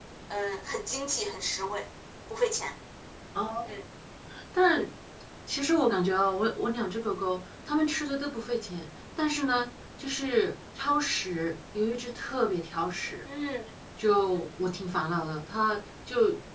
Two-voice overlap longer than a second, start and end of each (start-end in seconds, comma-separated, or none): none